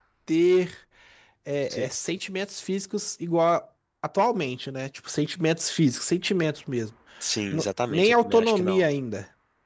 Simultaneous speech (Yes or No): Yes